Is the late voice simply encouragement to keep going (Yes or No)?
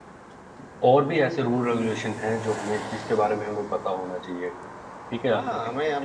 No